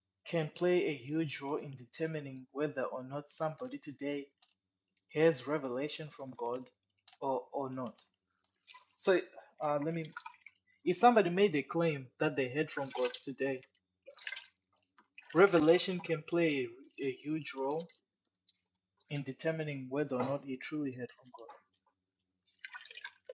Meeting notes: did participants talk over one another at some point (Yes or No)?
No